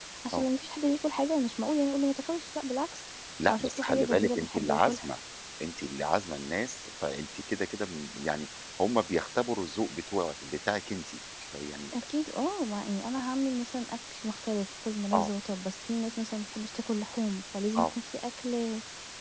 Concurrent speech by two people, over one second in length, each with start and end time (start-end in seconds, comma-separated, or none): 3.5-5.1